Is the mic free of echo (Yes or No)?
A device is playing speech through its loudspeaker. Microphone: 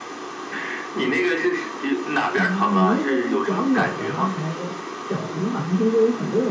No